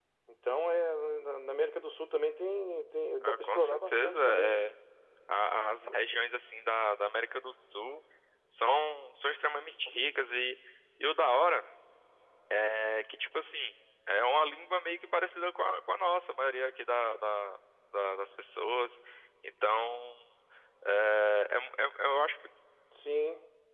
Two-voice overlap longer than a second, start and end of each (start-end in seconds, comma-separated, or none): 3.2-4.6